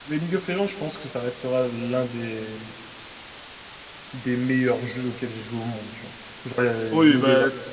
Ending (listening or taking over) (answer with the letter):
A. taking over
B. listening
A